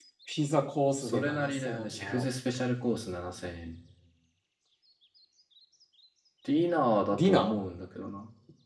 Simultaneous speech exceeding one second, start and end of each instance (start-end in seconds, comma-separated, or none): 1.0-2.2